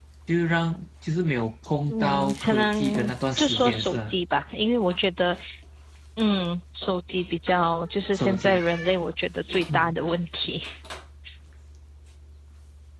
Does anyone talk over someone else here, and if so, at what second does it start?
2 s

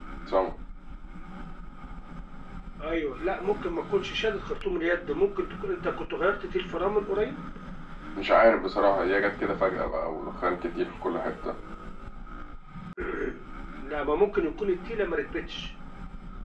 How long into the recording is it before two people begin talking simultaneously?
none

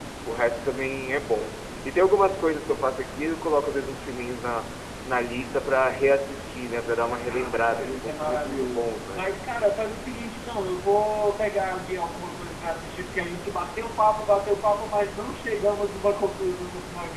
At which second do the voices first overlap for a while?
7 s

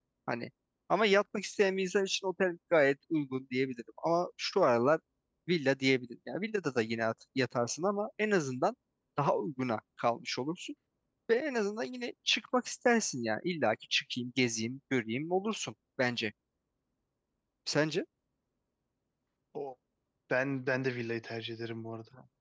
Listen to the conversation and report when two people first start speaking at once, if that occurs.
none

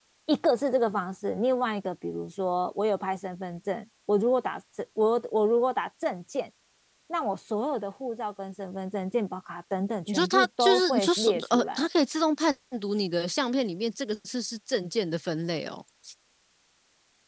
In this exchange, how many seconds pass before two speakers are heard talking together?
10 s

